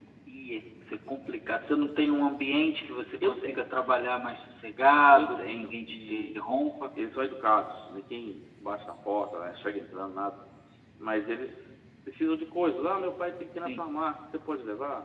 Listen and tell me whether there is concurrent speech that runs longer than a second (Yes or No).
Yes